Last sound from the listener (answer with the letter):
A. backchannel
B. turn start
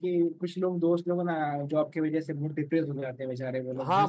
B